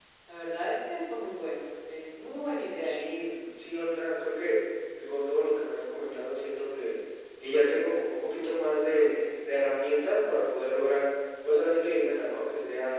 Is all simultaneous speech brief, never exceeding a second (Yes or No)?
Yes